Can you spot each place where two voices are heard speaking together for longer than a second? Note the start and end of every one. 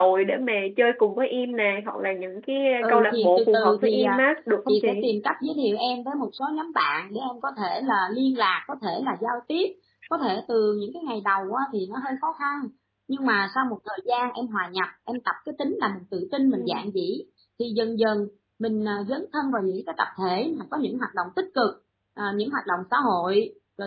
2.8-4.2

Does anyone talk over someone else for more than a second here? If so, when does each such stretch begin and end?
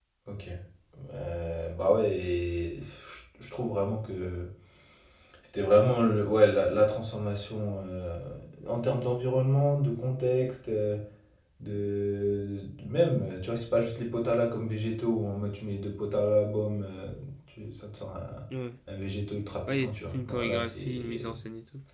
19.7-21.3

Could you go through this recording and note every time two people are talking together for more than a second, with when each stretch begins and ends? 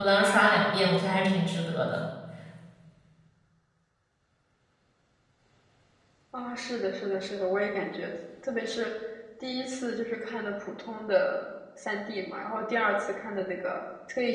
none

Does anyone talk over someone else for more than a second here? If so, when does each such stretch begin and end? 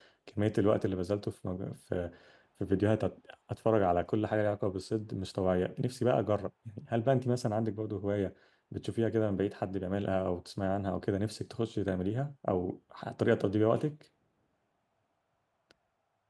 none

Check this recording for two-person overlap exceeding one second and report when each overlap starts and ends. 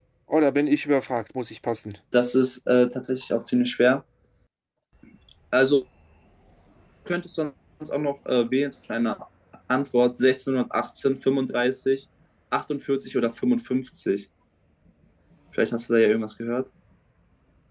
none

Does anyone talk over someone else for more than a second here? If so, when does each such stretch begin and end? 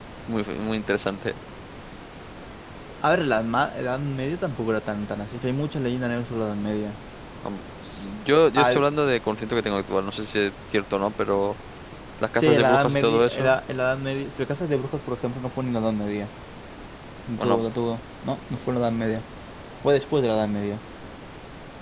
12.3-13.6

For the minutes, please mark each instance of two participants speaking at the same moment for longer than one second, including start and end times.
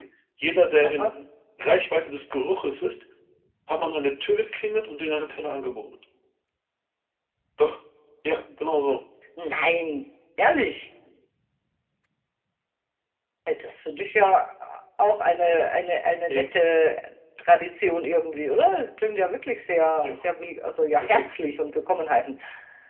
none

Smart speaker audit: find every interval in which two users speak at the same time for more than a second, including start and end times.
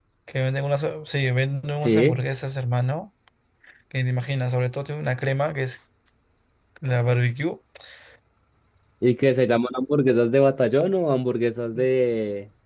none

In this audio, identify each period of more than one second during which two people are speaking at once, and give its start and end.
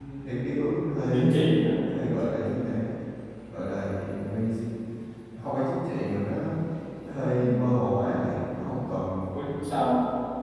none

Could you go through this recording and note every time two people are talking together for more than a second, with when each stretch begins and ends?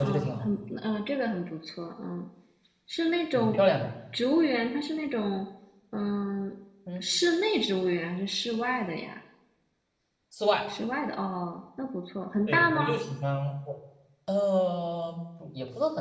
none

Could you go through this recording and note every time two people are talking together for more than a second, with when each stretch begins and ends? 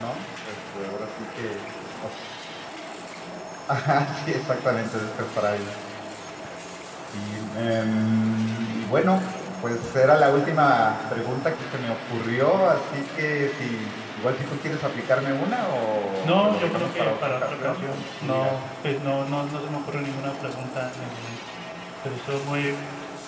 16.2-18.6

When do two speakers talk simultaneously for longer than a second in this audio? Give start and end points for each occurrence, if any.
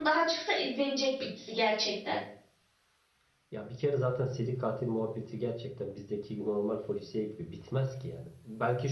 none

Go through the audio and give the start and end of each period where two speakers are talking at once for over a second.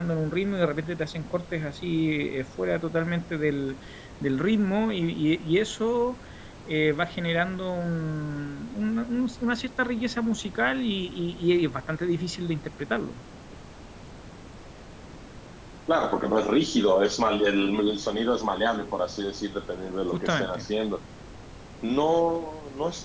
none

